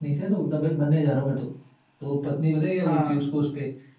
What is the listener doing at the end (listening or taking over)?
listening